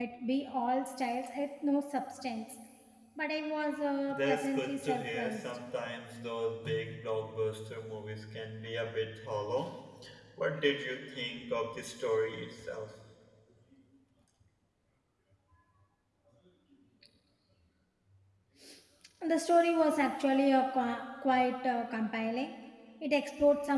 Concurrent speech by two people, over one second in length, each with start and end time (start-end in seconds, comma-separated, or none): 4.1-5.4